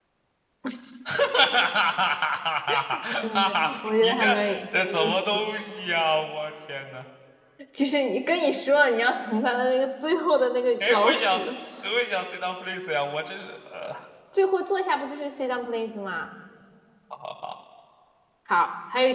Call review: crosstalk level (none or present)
present